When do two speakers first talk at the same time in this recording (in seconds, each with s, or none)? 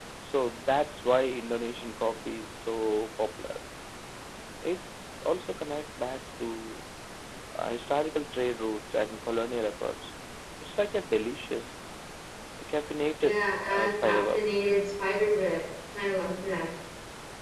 13.2 s